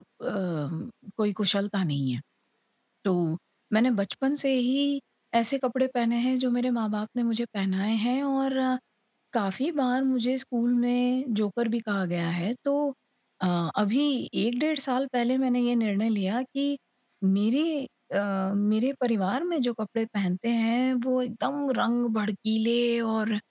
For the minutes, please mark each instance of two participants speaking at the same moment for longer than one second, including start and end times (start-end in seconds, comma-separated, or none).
none